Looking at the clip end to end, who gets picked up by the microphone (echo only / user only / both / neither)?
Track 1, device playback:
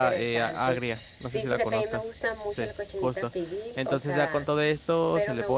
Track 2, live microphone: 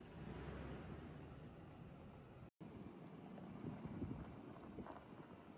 neither